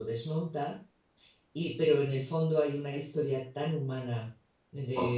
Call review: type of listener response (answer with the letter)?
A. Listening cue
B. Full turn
A